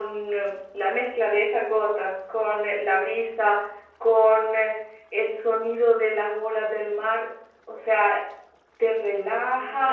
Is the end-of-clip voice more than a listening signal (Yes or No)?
No